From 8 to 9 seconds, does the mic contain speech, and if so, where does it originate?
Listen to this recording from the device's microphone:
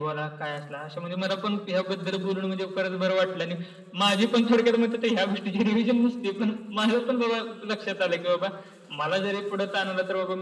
echo only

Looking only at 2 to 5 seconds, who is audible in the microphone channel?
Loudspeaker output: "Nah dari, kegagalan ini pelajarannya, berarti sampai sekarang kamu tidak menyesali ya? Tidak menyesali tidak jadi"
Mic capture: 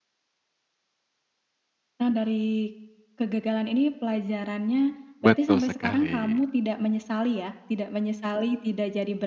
echo only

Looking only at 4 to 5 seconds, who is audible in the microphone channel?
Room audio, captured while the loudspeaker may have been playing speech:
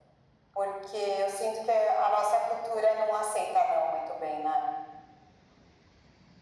echo only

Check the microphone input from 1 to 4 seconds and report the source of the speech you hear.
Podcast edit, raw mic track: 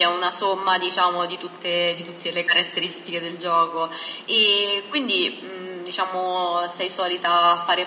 echo only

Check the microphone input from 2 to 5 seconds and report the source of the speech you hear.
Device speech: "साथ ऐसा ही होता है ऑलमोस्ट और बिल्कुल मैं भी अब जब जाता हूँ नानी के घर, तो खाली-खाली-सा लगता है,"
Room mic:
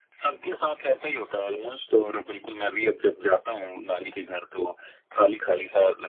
echo only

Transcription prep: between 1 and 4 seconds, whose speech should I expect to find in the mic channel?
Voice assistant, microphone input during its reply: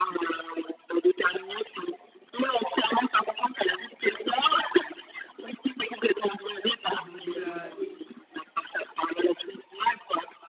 echo only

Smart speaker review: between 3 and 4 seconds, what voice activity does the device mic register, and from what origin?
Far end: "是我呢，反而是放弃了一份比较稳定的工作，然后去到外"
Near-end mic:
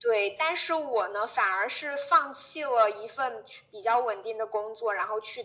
echo only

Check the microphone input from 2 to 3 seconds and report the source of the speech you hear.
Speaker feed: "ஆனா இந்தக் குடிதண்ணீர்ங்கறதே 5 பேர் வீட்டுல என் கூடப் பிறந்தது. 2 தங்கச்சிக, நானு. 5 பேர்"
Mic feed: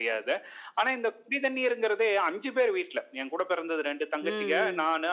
echo only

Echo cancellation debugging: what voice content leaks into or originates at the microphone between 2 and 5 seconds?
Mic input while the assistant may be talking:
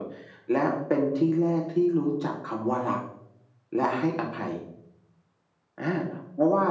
echo only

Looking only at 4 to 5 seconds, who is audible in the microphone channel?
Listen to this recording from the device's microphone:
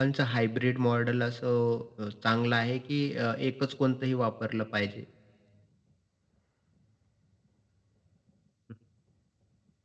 user only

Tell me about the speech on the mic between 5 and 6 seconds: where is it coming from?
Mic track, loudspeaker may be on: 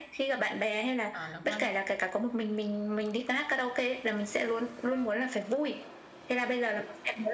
echo only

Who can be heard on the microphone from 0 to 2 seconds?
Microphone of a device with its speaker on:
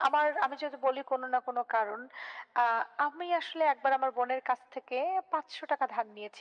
echo only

